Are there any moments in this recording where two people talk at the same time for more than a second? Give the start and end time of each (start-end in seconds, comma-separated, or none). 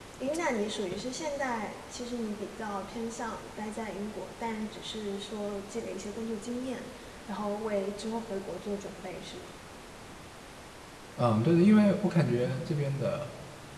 none